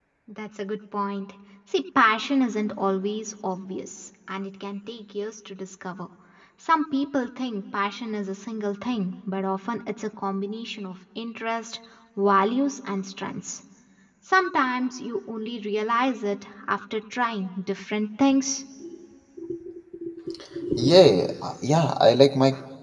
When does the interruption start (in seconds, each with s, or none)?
none